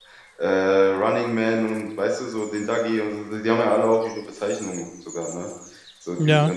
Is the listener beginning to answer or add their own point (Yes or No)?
No